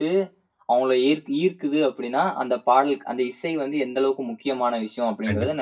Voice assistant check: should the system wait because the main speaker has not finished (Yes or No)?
No